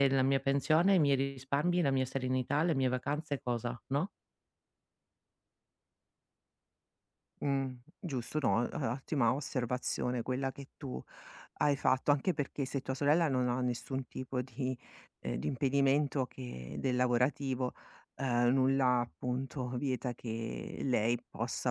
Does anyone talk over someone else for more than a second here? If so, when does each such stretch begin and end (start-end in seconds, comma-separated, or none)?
none